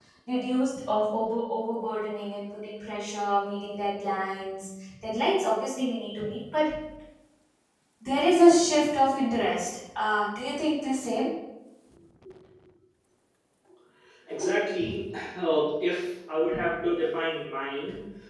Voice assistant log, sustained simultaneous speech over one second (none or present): none